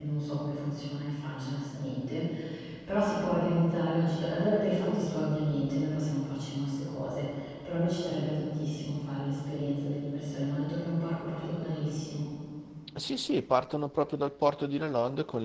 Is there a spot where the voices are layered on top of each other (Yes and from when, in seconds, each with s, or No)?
No